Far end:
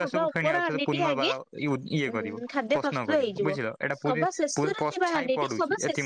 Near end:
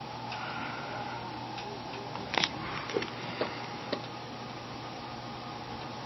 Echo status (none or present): none